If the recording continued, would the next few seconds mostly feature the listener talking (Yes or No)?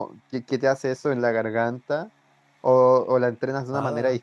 Yes